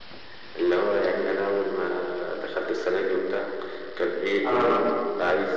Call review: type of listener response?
listening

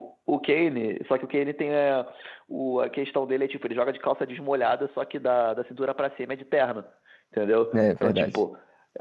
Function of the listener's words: listening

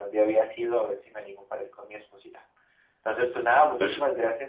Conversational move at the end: listening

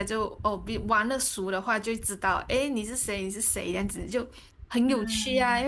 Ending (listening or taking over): listening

